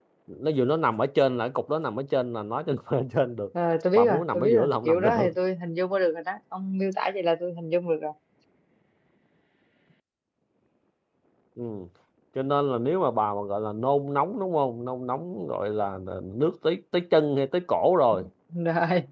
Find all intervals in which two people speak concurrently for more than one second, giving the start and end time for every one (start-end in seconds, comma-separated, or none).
4.0-5.3